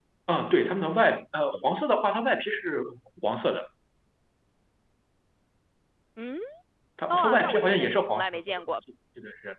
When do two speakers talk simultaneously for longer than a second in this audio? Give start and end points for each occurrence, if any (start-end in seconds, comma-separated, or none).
7.1-8.8